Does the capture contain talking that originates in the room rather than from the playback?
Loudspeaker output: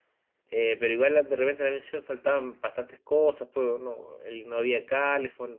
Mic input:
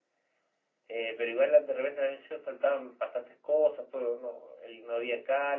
No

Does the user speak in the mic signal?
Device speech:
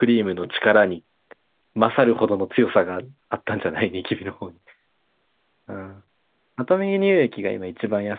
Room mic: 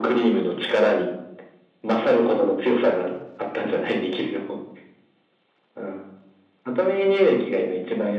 No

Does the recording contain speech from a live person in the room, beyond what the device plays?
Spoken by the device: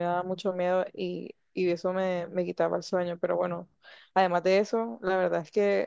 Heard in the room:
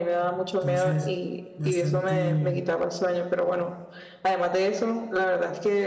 Yes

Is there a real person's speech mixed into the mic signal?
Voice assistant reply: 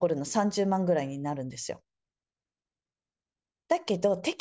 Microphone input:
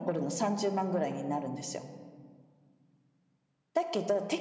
No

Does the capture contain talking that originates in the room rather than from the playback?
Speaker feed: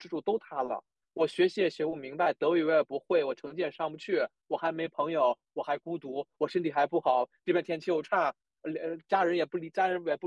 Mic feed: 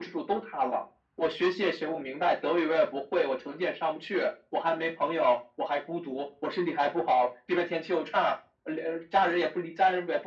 No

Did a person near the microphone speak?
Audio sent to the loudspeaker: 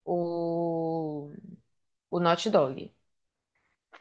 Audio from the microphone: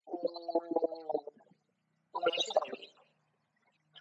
No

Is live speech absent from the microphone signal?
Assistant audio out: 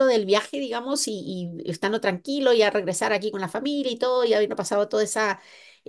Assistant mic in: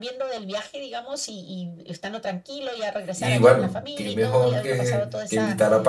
No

